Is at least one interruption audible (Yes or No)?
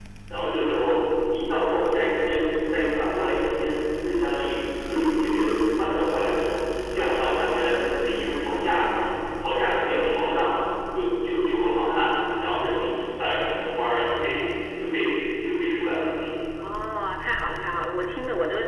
No